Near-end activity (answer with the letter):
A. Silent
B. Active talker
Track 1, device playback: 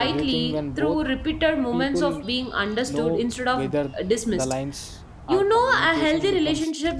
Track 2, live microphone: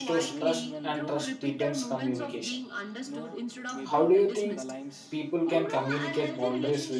B